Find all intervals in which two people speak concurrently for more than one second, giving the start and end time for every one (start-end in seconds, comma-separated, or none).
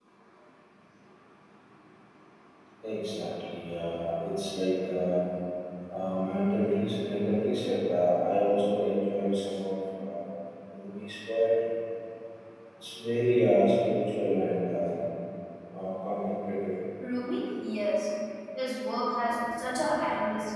none